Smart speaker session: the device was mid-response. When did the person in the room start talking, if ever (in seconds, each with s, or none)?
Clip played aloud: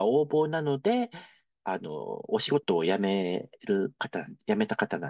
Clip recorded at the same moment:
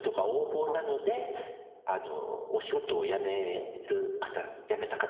0.6 s